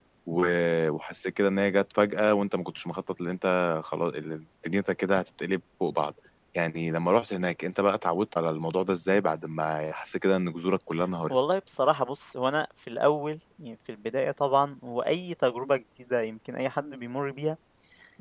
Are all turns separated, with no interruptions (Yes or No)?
Yes